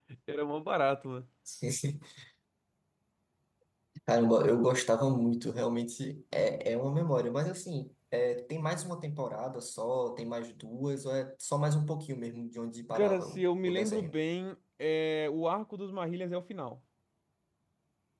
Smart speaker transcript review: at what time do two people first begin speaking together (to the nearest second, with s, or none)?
13 s